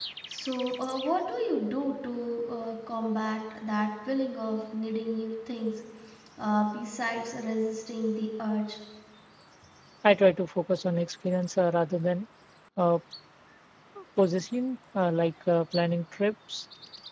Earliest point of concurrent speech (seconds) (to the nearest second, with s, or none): none